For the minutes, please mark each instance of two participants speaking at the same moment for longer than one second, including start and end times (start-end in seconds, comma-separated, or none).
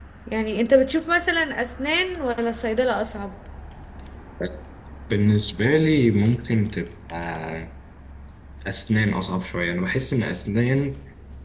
none